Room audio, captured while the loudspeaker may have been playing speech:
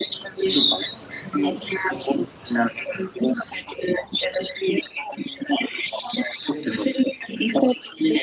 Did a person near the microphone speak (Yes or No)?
No